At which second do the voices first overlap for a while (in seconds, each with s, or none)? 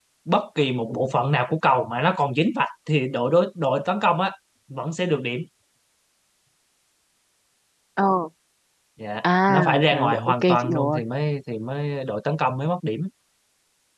9.5 s